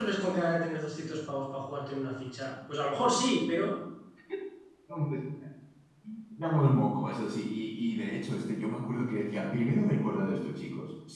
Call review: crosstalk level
none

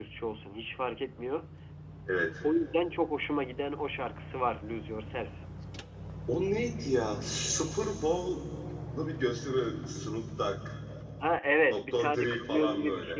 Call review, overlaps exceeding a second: present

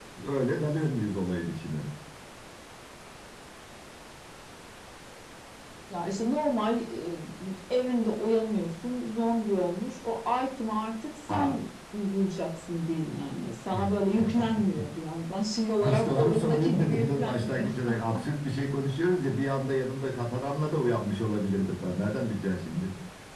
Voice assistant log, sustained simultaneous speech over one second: present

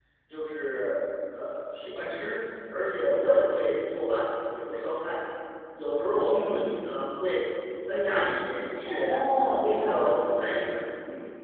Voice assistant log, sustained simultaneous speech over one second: present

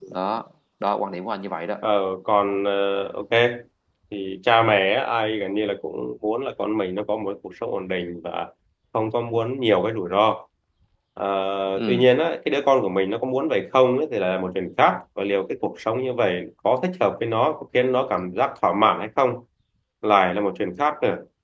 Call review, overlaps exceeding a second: none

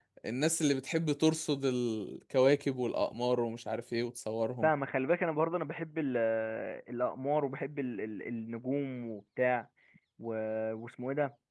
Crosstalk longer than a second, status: none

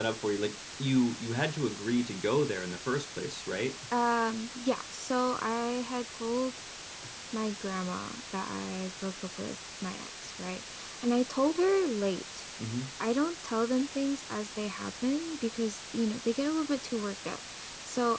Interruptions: none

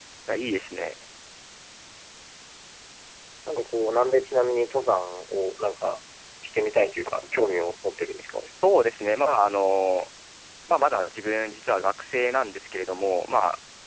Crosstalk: none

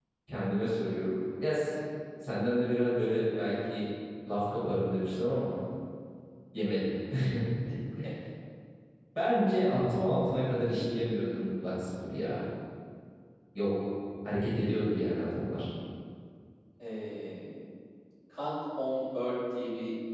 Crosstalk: none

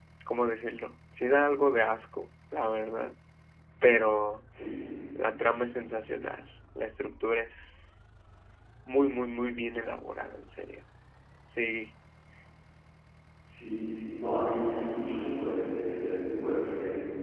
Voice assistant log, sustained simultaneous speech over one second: none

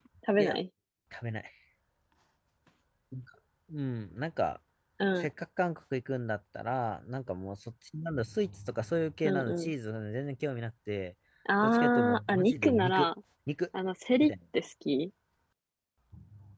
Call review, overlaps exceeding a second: present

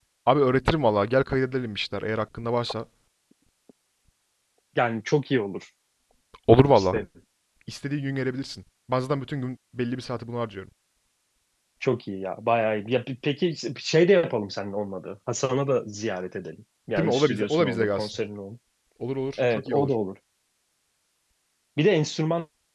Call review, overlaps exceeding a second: present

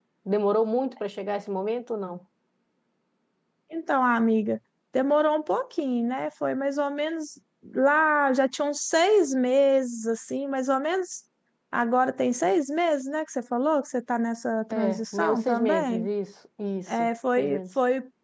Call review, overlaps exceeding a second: present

